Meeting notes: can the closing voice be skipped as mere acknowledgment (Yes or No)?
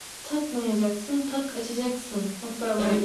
No